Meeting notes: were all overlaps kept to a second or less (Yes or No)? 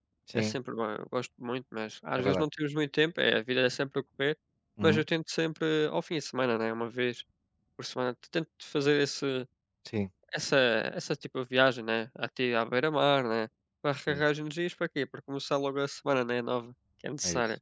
Yes